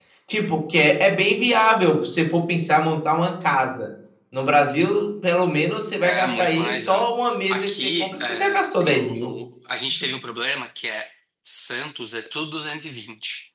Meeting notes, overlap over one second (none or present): present